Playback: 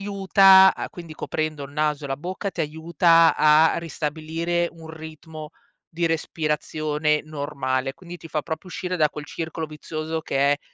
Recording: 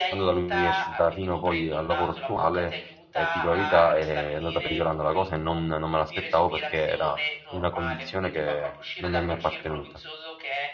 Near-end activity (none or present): present